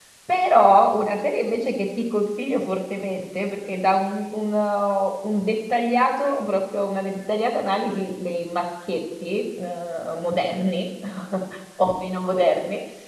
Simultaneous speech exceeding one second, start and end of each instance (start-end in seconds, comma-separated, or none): none